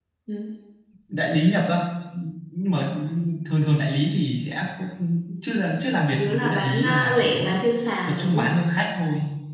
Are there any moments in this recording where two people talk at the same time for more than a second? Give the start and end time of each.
6.1-7.6

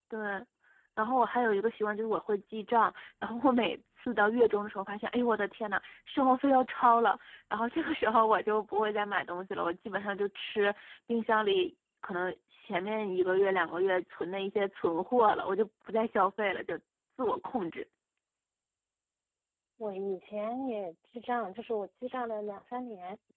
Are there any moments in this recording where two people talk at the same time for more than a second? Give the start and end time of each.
none

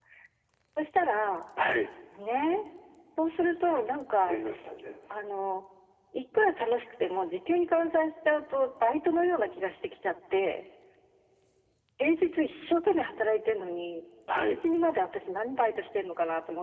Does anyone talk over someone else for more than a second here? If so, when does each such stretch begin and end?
none

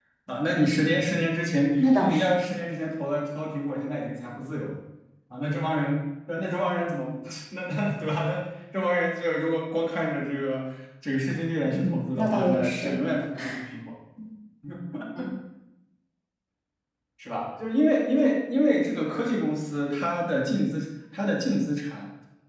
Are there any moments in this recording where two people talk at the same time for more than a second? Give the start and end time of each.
11.6-12.9

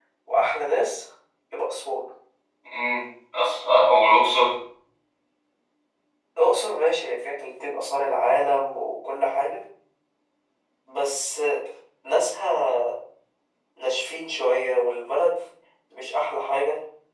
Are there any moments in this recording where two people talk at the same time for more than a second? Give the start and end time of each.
none

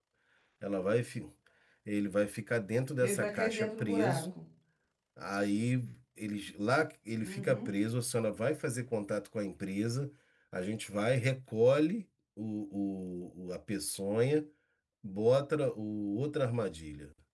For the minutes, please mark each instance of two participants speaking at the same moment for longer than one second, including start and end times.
3.0-4.3

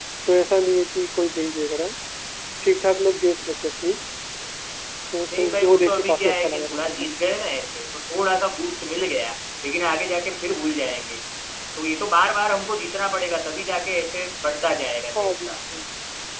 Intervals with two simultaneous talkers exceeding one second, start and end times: 5.3-7.1

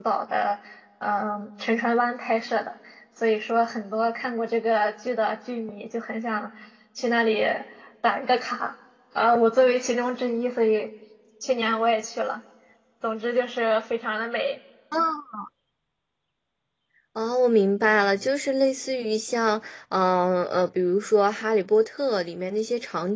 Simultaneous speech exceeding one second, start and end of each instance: none

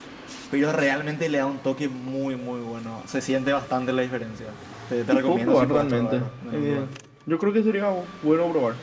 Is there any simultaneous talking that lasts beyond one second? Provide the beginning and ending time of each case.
5.1-6.9

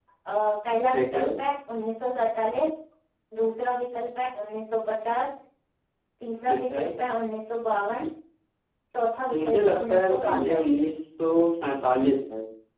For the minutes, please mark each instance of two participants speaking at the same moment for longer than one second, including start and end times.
9.4-10.6

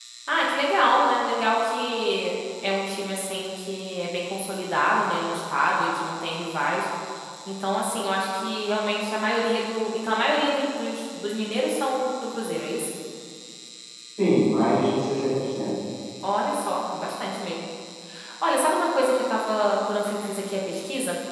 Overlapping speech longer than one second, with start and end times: none

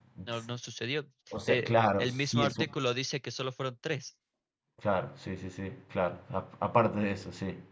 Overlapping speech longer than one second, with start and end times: 1.5-2.8

